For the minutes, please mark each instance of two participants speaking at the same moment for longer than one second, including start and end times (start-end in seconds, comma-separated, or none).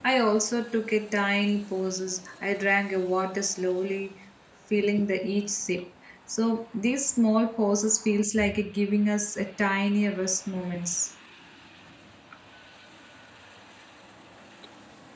none